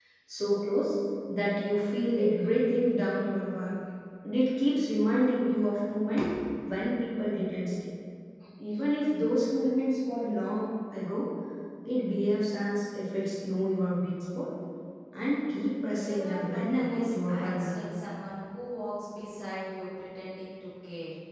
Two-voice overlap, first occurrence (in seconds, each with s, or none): 16.0 s